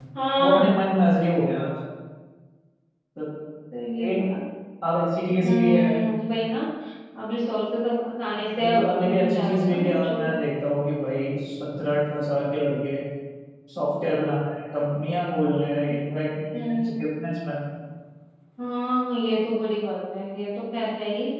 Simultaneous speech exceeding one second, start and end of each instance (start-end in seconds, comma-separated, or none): 8.6-10.4